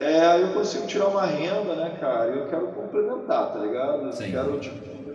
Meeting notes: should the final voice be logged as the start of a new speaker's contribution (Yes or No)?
No